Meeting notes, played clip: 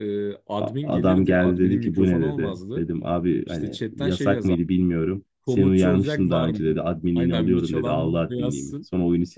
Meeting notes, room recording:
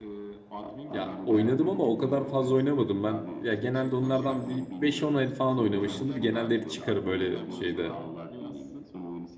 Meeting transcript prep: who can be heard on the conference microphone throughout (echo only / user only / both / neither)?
both